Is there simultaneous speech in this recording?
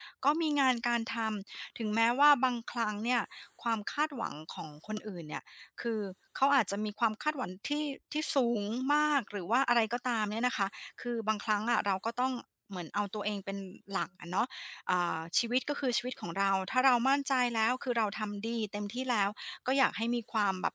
No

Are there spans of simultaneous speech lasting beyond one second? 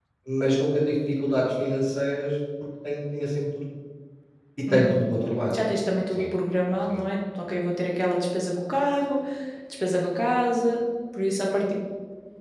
No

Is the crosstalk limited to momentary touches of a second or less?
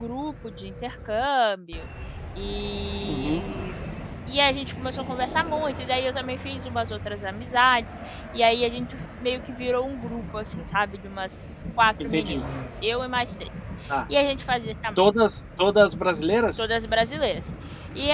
Yes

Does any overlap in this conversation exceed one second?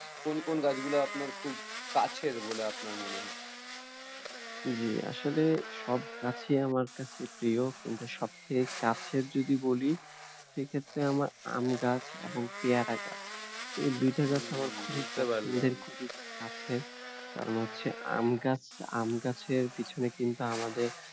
Yes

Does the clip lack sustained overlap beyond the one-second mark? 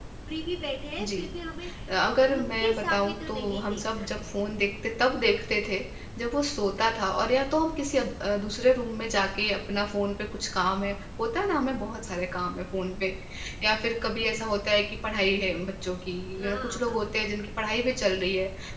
No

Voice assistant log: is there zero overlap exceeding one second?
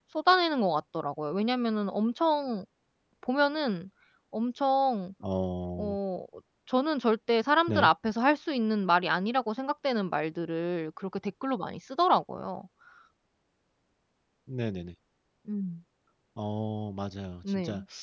Yes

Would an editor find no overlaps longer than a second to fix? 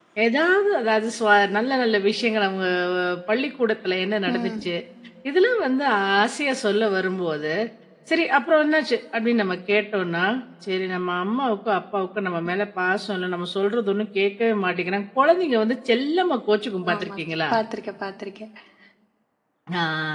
Yes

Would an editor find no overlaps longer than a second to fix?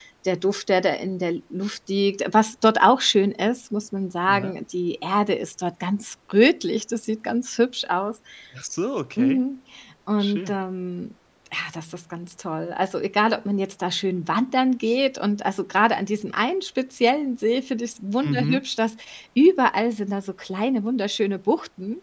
Yes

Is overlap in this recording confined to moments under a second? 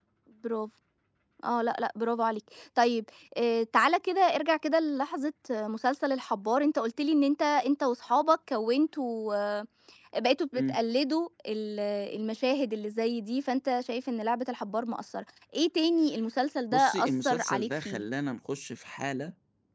No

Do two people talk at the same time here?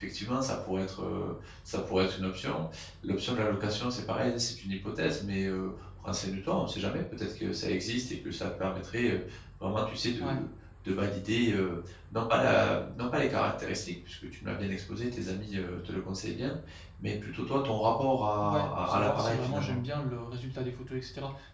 Yes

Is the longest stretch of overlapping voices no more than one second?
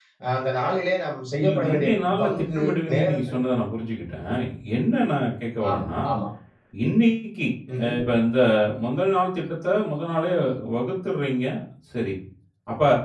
No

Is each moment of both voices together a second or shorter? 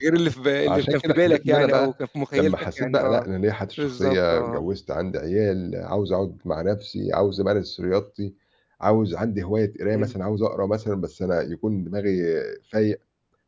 No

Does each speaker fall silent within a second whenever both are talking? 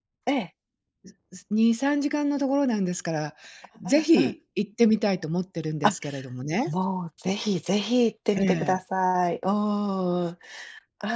Yes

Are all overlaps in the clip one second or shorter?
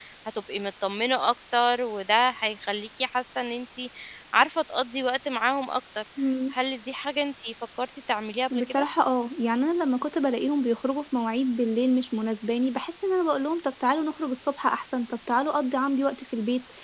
Yes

